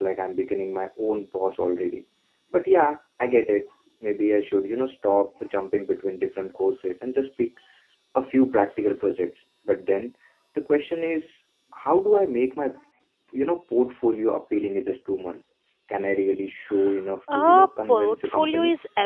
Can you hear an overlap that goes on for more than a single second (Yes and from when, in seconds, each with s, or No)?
Yes, from 17.3 s